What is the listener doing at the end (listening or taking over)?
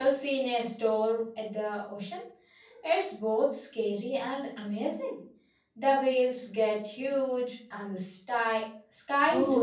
taking over